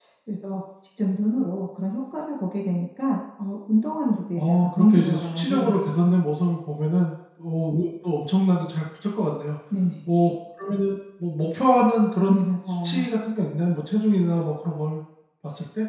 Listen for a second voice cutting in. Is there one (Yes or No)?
Yes